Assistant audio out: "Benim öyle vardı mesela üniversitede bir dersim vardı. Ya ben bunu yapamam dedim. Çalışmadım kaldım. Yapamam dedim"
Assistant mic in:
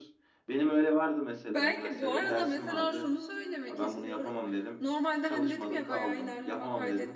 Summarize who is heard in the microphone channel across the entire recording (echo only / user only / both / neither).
both